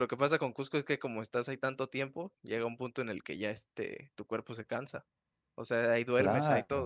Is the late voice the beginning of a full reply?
Yes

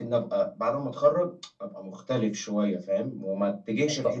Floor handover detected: No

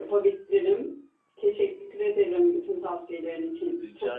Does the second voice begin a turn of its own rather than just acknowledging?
Yes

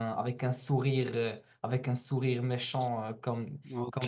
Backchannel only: Yes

